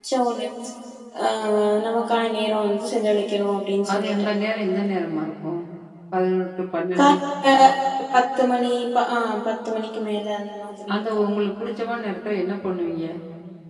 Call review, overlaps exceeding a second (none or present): none